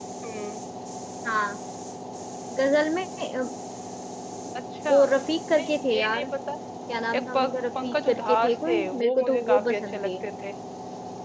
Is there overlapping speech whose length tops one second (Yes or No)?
Yes